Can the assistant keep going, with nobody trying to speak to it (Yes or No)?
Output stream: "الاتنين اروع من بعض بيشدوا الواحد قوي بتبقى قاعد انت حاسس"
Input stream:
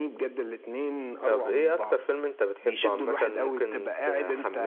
No